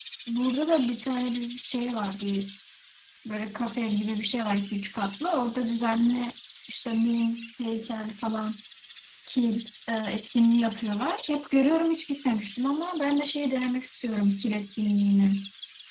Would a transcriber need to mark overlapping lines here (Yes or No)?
No